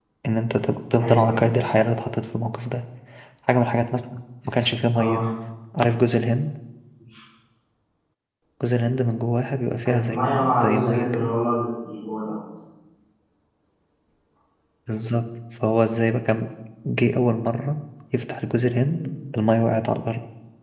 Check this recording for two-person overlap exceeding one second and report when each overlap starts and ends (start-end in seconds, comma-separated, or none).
9.9-11.3